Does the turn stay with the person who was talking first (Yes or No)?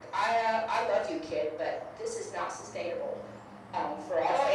No